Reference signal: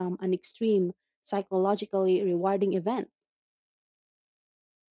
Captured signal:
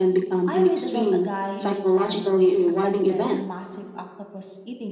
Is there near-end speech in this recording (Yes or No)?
Yes